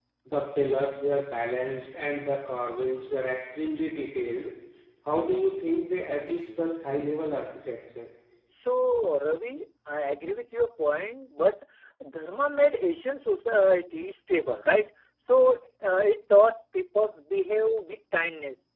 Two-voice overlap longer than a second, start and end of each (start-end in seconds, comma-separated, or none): none